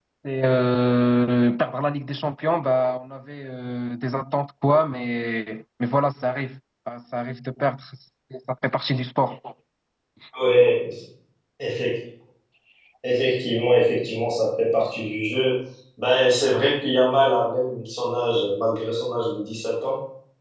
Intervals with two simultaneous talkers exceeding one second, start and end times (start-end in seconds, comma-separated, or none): none